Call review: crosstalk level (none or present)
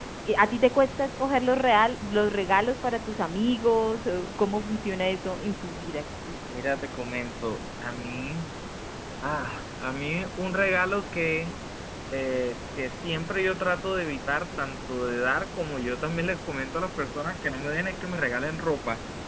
none